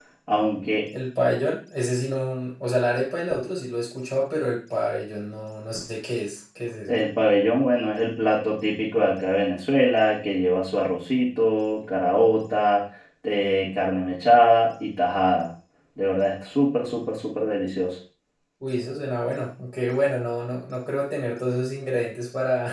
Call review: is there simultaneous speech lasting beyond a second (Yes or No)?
No